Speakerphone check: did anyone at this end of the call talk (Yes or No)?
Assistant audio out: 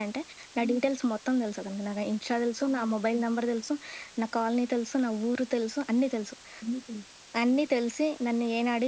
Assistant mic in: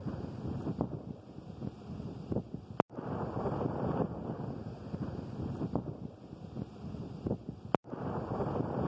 No